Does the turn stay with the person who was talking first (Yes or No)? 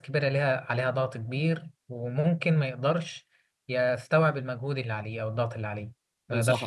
No